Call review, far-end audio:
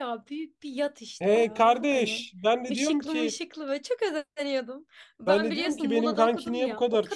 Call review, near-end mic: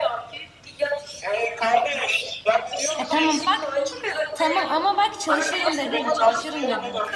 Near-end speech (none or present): present